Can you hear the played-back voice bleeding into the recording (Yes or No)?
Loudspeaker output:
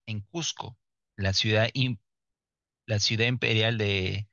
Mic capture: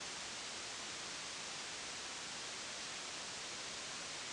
No